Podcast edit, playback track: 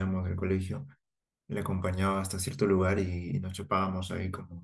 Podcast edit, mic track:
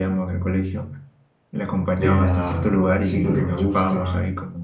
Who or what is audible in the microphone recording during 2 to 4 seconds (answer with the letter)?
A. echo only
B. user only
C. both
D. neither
C